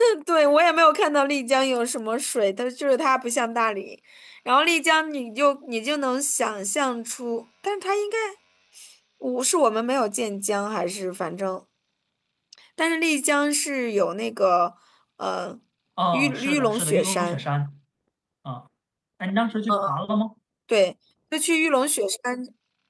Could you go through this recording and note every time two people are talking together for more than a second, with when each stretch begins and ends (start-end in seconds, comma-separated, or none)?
16.1-17.4